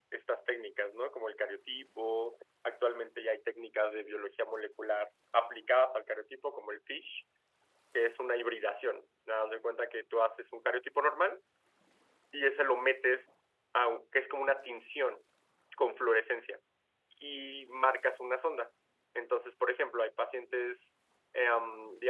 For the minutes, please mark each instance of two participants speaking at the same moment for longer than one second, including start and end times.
none

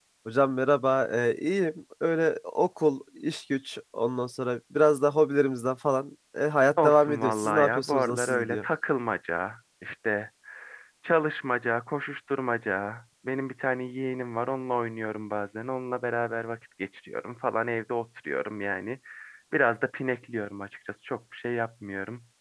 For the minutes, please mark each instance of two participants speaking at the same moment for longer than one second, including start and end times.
6.8-8.6

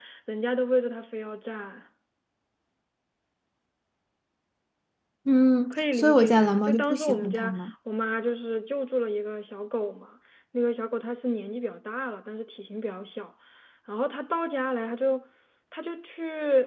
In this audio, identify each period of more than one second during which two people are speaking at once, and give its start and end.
5.7-7.6

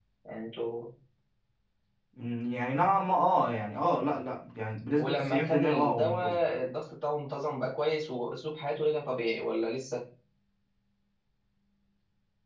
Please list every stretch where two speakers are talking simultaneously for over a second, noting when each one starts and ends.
5.0-6.4

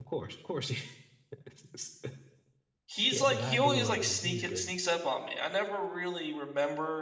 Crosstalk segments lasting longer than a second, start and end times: 3.1-4.7

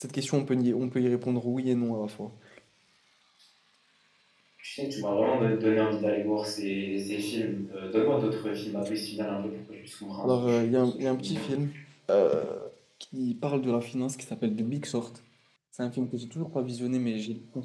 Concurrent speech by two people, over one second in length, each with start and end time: 10.2-11.4

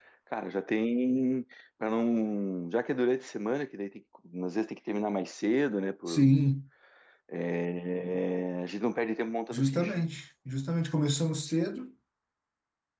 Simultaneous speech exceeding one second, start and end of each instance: none

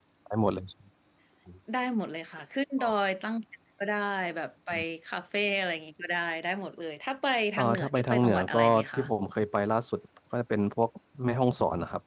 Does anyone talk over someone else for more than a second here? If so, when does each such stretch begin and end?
7.6-9.0

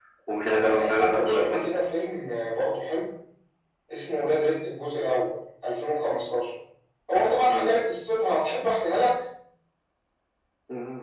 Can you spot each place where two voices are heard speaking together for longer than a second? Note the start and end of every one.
0.5-1.8

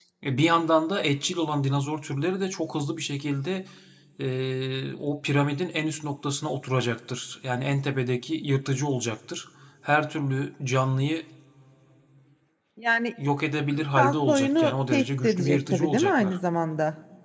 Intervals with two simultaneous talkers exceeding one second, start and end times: 14.0-16.3

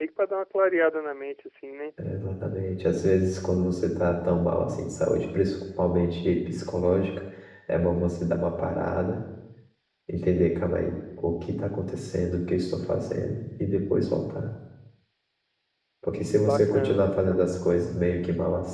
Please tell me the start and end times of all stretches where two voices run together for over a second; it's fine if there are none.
16.4-17.8

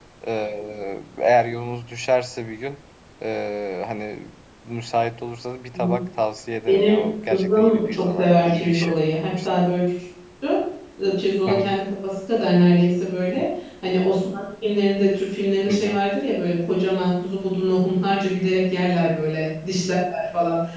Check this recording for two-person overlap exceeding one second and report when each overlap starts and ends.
6.7-8.9

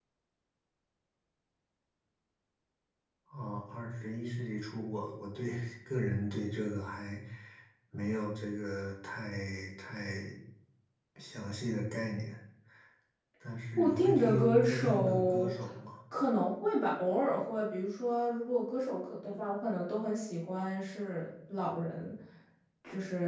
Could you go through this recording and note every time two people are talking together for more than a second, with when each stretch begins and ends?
13.8-15.5

